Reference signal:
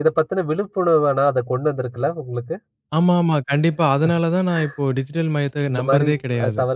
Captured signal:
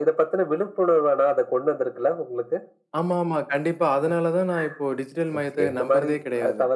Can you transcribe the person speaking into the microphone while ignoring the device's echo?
ஓகே.

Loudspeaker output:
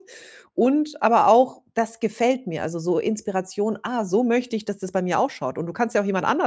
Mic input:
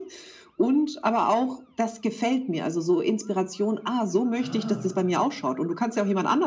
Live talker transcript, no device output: Ah,

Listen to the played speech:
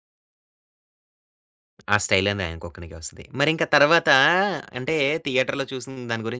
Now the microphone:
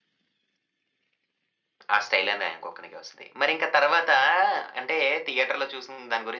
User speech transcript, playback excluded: none

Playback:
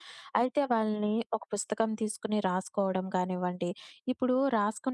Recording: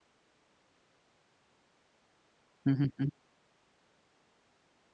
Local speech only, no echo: హుహుహు.

